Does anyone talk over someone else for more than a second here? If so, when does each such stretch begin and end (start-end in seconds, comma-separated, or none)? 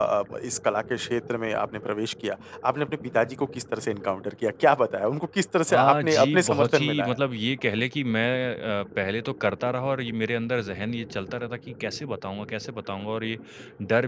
5.7-7.2